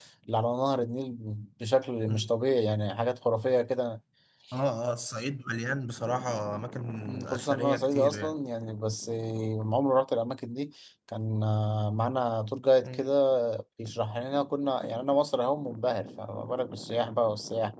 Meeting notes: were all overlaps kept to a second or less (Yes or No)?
No